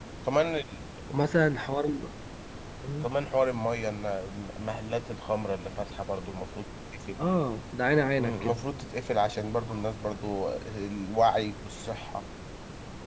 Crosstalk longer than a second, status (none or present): none